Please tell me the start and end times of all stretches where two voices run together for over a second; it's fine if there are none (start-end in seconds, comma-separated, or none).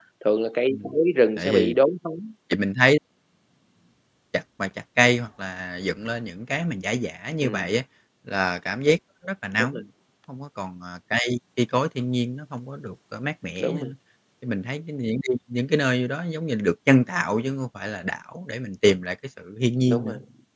none